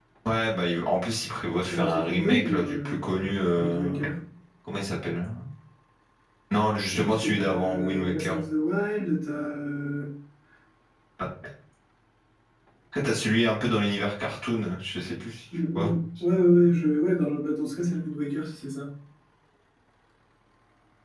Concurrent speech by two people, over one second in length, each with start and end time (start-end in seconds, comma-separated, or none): 1.6-3.0, 6.9-8.3